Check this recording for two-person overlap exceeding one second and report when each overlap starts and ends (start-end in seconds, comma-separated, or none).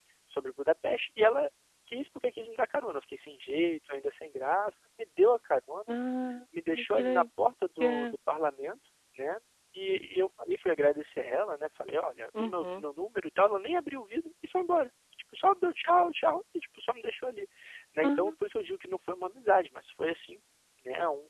none